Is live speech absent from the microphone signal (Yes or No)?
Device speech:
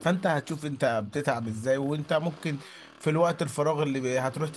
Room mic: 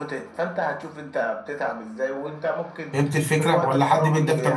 No